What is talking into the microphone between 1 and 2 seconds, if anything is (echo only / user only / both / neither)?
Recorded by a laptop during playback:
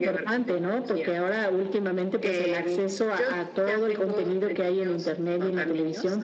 echo only